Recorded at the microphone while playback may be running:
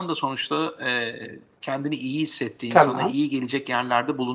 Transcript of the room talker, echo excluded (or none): Tamam.